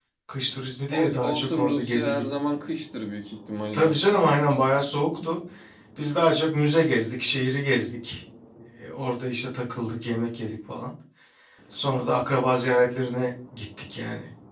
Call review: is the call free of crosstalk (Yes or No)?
No